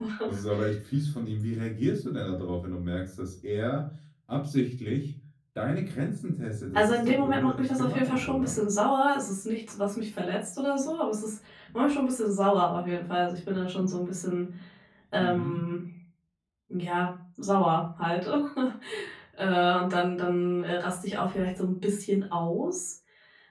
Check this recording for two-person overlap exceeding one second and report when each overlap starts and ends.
6.7-8.6

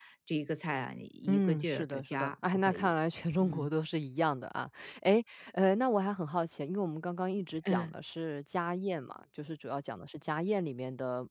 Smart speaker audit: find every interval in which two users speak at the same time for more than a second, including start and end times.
1.3-2.9

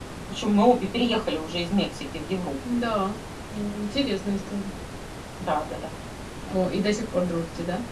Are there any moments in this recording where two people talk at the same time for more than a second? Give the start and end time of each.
none

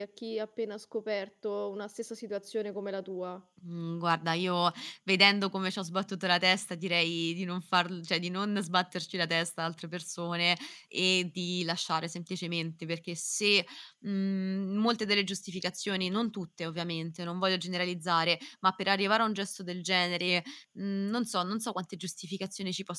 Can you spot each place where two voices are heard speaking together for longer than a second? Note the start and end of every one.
none

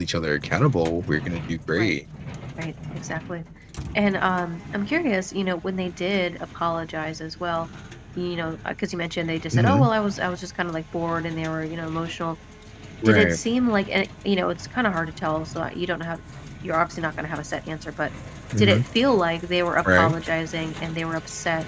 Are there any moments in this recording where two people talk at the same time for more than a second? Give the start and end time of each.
none

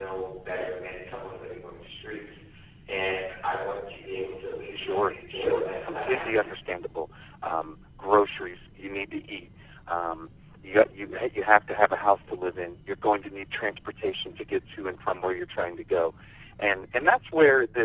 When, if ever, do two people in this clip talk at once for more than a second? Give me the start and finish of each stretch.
4.7-6.4

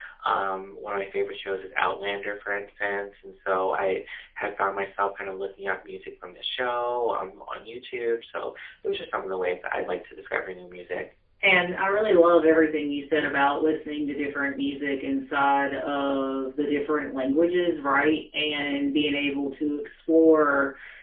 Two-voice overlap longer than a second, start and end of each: none

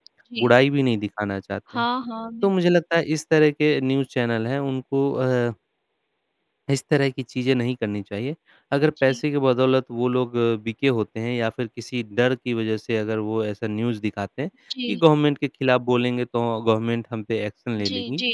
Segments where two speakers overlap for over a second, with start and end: none

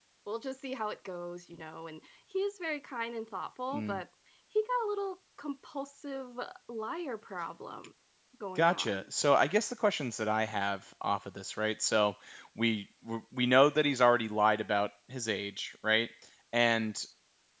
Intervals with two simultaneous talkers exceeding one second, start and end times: none

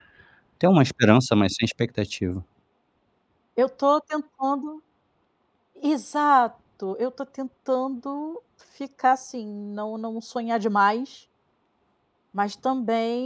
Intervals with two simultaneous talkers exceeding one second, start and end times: none

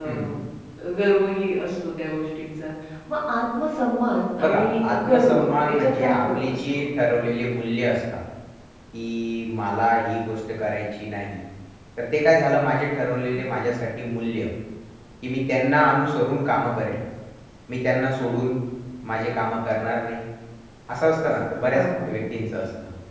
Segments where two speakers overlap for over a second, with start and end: 4.4-6.6

